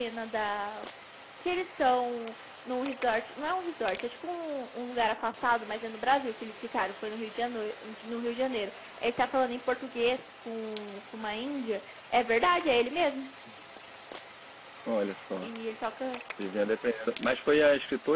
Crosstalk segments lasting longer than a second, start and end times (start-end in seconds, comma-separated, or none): none